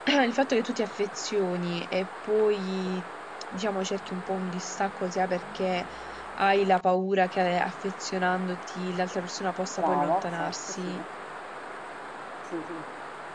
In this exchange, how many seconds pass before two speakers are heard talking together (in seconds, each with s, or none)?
9.7 s